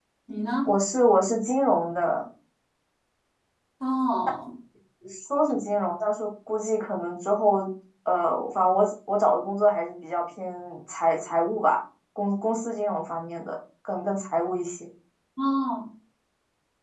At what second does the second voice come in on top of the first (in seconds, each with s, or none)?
none